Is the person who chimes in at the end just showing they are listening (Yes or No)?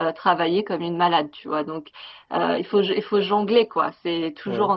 Yes